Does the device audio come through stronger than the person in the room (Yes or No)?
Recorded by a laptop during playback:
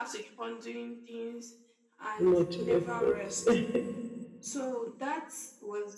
No